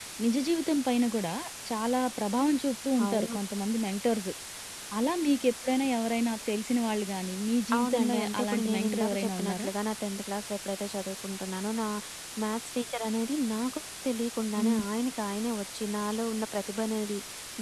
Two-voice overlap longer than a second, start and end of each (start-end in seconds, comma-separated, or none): 7.8-9.7